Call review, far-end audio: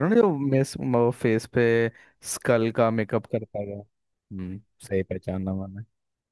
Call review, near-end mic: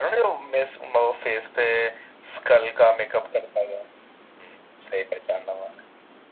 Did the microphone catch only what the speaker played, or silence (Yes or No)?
Yes